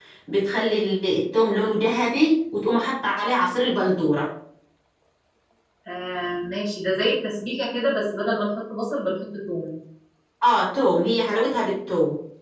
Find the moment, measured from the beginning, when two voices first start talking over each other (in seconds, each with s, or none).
none